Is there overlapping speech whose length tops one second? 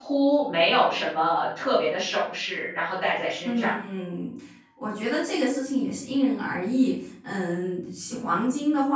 No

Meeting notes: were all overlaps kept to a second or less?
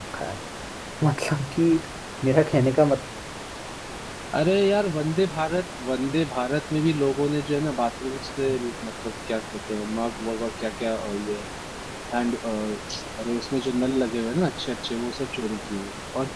Yes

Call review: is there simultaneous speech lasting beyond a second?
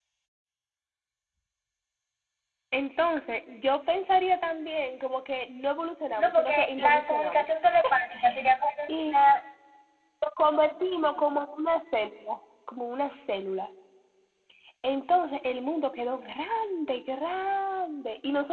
Yes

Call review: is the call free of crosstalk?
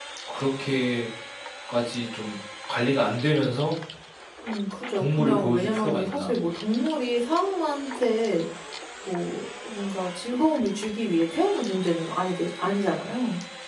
No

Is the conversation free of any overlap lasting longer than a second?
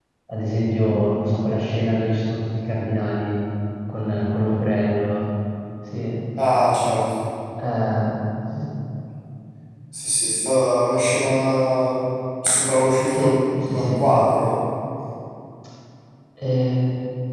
Yes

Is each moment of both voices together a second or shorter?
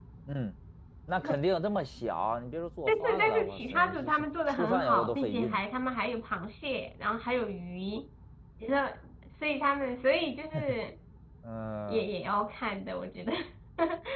No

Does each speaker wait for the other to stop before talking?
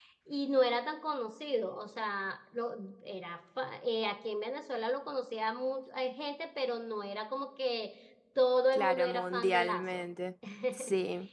No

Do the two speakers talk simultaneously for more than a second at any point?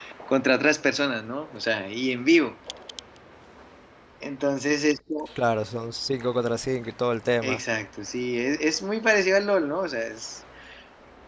No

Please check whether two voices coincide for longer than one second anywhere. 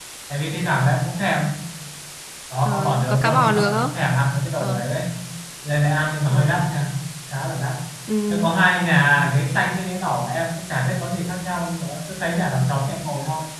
Yes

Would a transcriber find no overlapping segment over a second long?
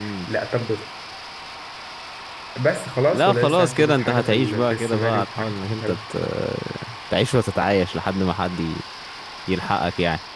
No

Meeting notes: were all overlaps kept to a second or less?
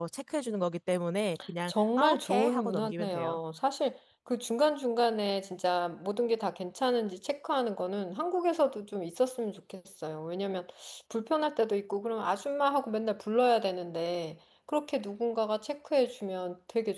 No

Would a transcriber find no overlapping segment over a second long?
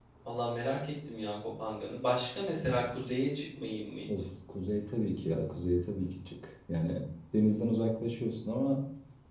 Yes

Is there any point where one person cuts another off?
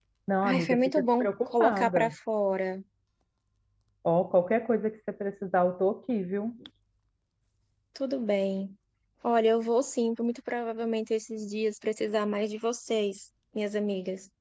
Yes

